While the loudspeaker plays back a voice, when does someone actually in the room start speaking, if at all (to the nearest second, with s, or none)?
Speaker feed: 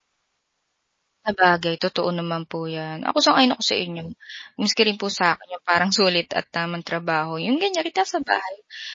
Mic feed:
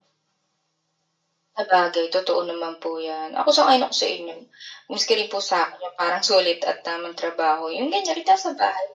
none